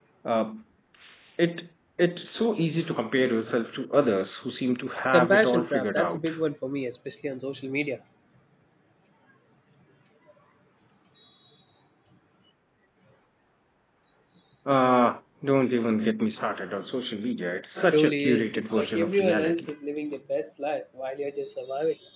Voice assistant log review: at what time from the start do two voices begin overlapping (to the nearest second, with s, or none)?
5 s